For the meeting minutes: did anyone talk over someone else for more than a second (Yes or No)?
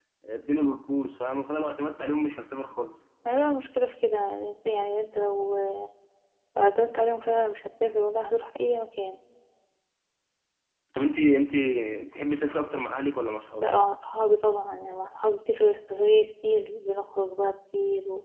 No